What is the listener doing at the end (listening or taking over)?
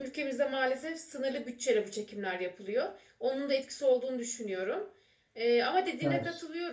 listening